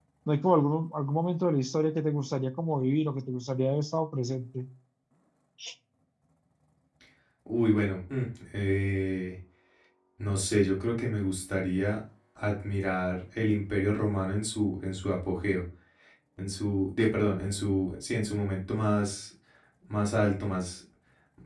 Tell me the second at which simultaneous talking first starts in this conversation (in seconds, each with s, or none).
none